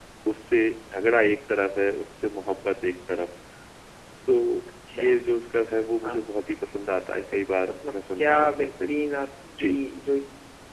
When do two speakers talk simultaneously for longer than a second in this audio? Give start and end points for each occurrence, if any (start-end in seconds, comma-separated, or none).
7.7-8.9